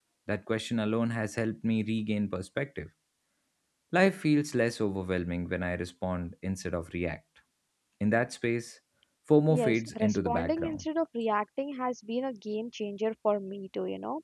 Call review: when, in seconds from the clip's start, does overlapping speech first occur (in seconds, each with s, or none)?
9.5 s